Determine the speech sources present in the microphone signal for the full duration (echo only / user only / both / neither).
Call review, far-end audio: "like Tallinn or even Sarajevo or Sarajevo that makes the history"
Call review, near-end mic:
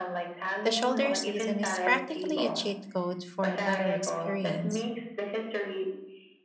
both